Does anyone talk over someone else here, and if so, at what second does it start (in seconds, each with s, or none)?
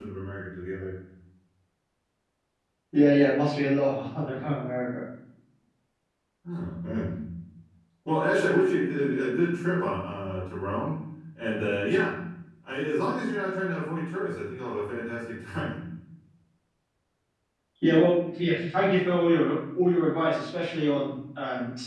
none